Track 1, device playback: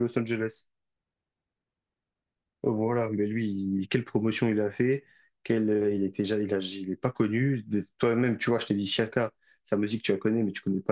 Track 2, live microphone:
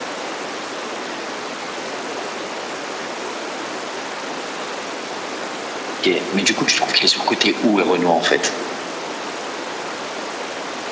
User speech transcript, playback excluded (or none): ok, mais du coup, tu trouves qu'il est surcoté où, Renoir, en fait?